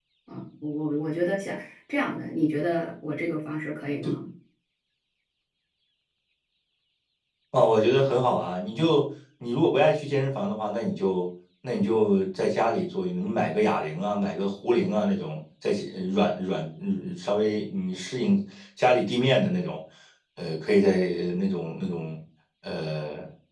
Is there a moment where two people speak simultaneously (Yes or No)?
No